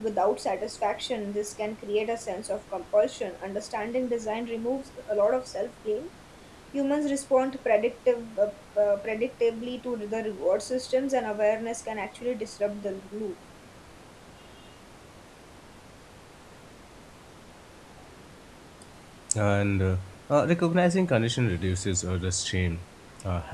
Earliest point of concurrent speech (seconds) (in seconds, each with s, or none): none